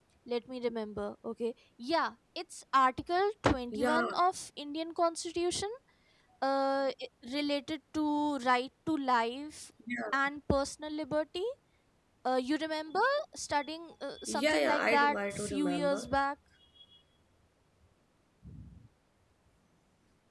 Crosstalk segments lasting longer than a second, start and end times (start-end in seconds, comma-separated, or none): 14.2-16.1